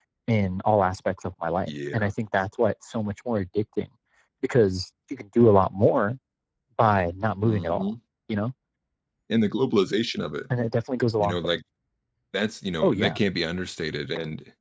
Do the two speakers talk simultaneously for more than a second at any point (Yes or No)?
No